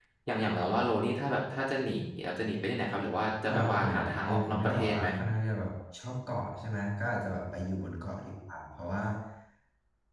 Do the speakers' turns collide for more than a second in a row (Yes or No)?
Yes